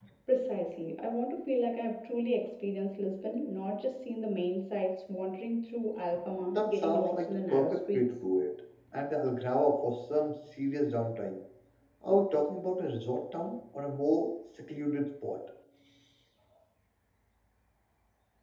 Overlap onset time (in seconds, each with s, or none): 6.4 s